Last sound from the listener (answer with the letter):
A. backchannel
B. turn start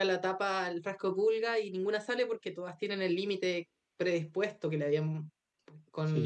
B